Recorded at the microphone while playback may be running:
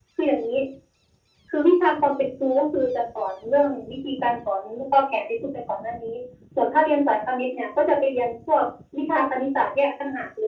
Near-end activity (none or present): none